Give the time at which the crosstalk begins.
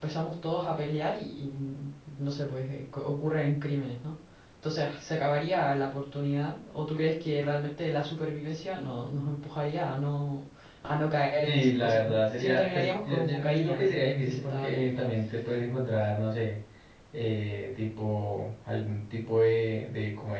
11.4 s

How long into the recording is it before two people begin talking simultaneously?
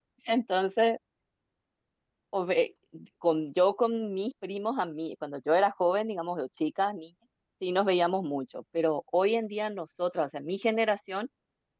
none

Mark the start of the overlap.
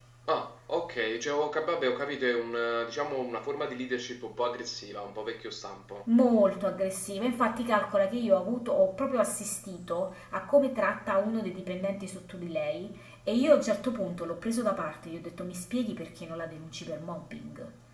none

